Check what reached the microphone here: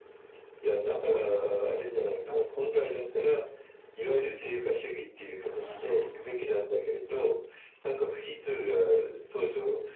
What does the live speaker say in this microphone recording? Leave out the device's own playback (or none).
はい。